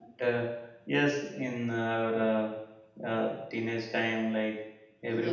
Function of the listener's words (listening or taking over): taking over